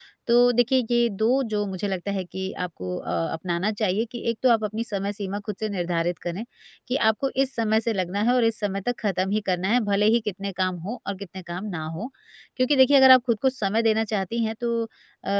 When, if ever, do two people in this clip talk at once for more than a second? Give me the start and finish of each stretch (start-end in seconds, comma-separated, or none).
none